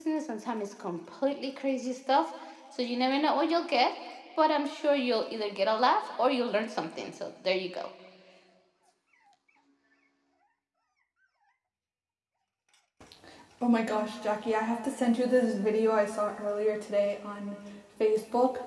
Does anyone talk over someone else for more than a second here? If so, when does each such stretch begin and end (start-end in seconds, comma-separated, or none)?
none